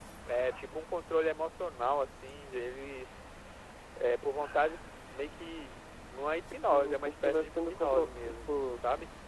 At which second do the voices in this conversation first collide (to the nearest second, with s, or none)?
7 s